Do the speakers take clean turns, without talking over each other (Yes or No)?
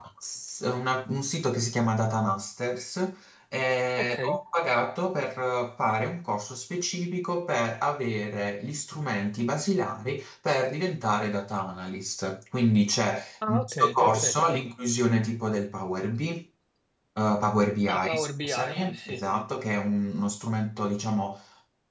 No